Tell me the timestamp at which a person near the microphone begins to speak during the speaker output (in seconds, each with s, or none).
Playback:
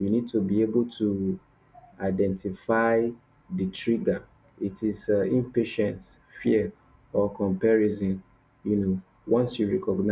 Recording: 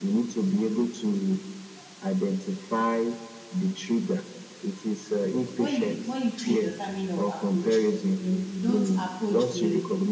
5.4 s